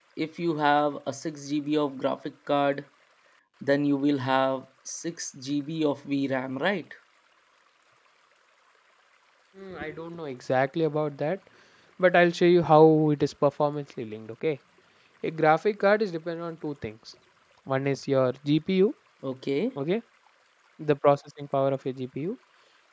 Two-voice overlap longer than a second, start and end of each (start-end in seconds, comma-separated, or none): none